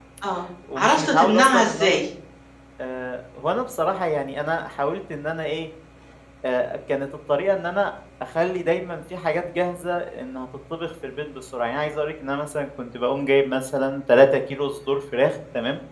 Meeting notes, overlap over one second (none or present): present